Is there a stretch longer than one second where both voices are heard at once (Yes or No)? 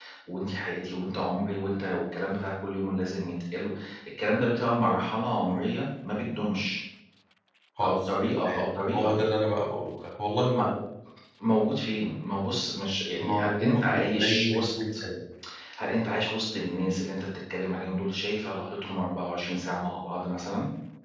Yes